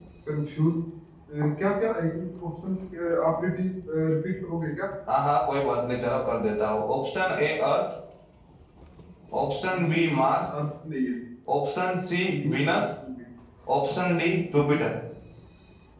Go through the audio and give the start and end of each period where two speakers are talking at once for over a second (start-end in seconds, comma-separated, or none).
none